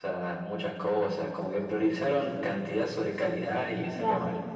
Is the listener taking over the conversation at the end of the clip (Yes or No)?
Yes